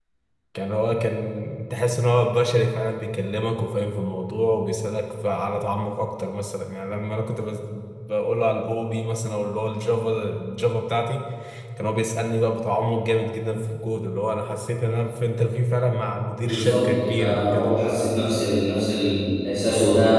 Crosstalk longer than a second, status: present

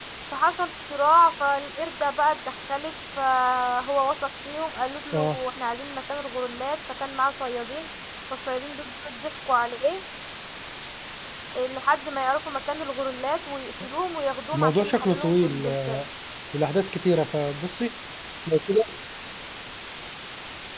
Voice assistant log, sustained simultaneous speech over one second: present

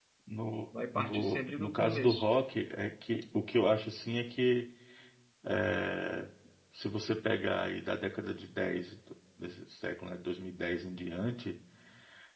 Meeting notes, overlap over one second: present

